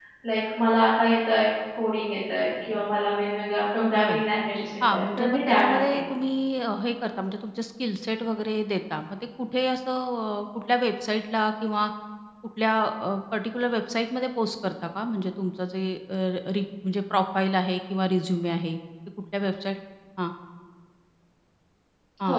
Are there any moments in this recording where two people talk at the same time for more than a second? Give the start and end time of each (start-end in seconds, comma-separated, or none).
4.9-6.1